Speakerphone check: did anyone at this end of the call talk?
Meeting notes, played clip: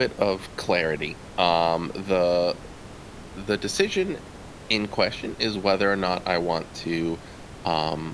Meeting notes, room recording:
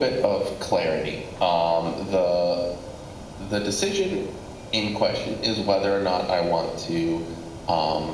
No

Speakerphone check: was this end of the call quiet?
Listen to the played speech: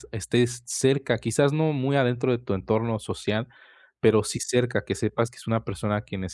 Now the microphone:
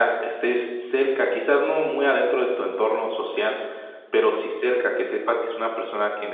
Yes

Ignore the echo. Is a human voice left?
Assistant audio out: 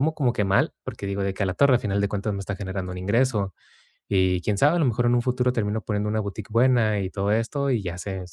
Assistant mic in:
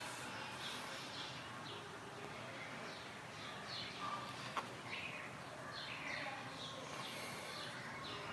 No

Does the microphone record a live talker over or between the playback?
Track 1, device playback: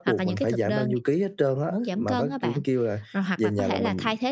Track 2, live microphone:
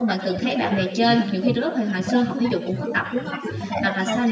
Yes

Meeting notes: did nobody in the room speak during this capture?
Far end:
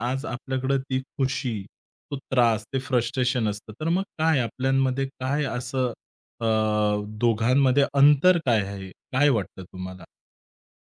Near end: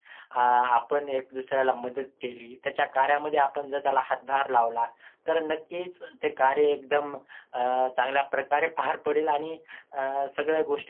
No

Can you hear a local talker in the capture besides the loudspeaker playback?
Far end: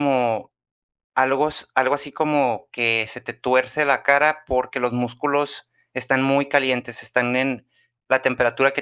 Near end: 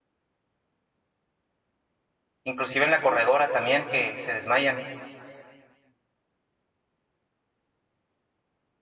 Yes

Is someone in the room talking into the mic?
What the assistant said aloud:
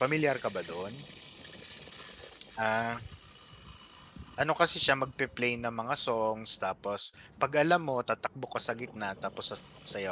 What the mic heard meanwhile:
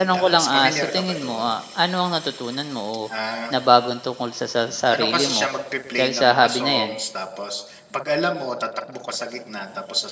Yes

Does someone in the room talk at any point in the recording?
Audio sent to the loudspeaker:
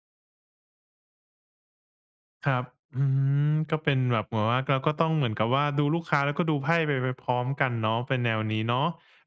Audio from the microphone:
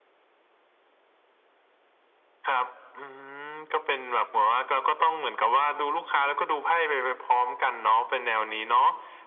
No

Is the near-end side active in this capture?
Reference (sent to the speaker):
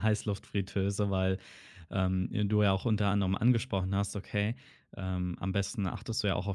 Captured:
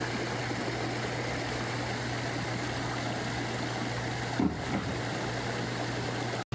No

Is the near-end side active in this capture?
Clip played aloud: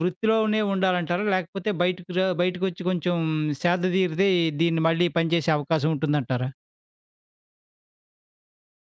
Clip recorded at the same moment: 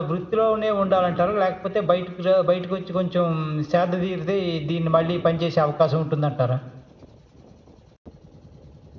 No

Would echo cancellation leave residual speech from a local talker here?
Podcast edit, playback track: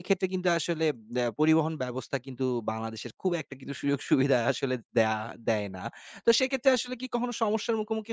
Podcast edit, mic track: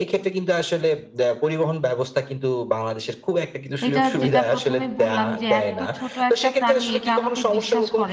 Yes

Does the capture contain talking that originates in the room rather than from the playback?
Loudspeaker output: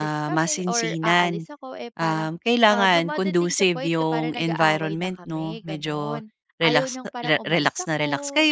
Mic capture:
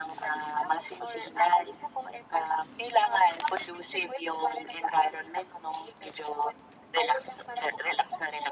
No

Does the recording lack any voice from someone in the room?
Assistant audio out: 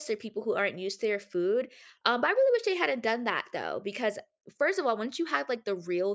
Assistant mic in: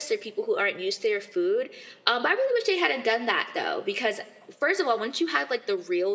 Yes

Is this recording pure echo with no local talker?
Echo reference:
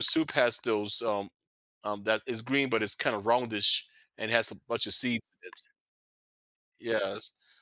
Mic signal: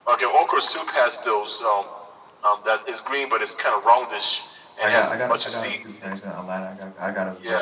No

